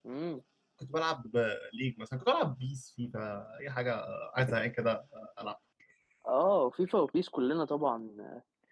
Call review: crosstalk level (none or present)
none